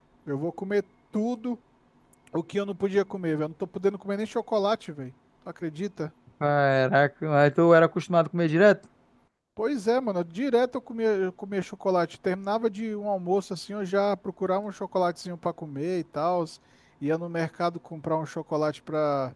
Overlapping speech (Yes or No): No